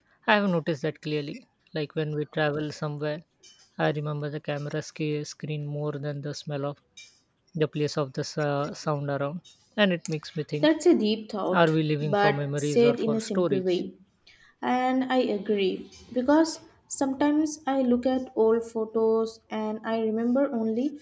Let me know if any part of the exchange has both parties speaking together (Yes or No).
Yes